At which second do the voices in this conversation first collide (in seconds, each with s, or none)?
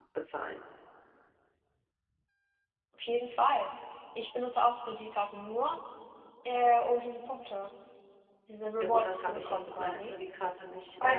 8.8 s